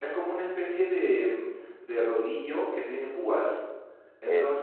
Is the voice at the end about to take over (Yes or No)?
No